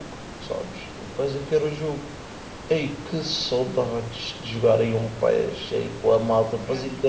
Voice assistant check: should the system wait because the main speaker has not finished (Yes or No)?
Yes